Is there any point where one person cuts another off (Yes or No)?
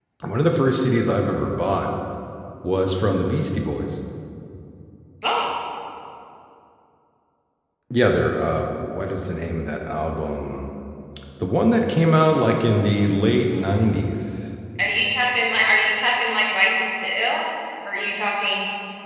No